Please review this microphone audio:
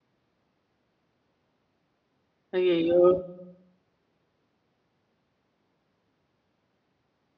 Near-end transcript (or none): ஐயயோ!